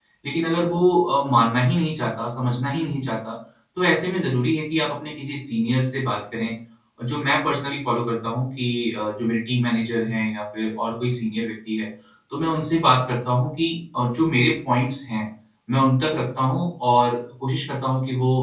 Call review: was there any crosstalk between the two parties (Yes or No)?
No